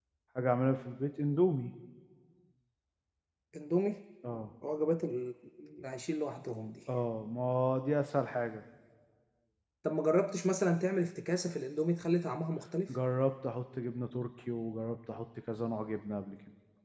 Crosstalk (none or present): none